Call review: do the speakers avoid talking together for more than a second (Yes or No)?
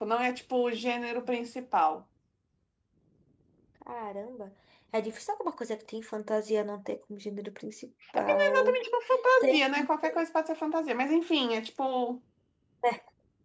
Yes